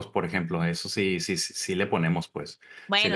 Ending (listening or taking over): taking over